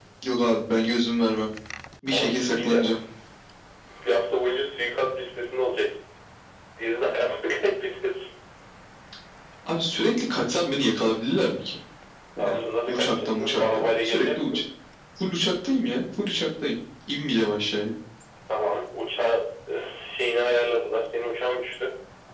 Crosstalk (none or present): present